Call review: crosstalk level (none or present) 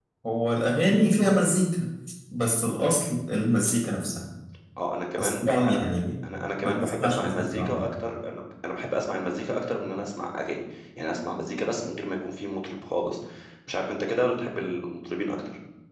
present